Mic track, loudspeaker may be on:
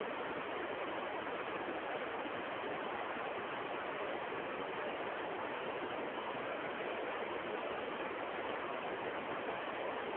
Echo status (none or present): none